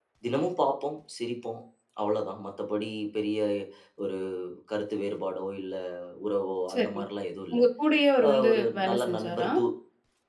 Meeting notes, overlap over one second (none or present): present